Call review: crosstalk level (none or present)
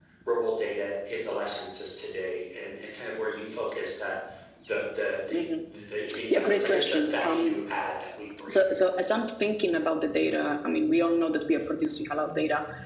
present